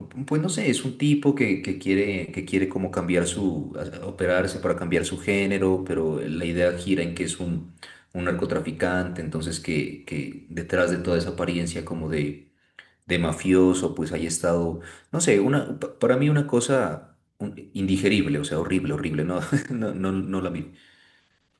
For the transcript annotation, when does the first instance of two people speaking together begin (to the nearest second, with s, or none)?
none